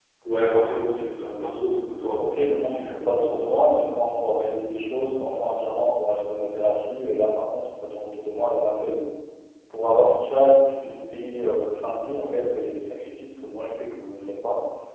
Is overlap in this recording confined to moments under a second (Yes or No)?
No